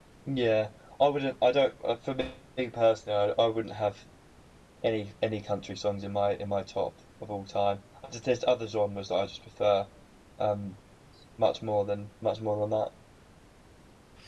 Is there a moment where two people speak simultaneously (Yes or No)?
No